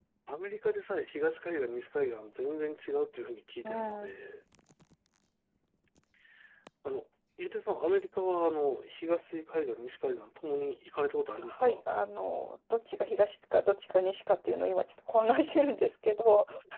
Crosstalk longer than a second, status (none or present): none